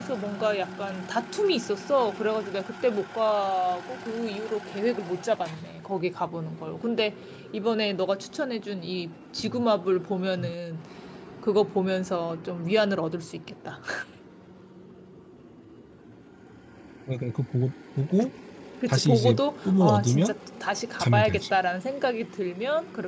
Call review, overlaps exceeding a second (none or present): present